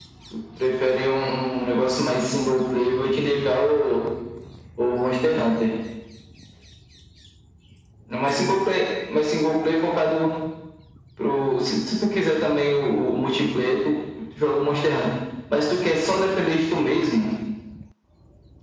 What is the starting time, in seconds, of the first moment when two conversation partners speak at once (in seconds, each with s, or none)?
none